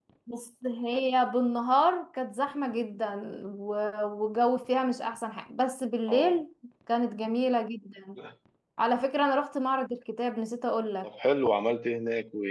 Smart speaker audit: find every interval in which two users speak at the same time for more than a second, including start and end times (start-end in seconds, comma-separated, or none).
none